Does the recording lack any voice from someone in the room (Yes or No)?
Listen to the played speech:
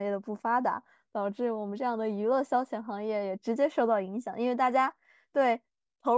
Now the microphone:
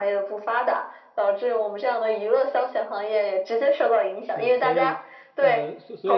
No